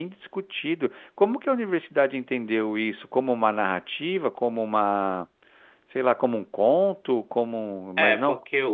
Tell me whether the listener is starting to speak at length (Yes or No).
Yes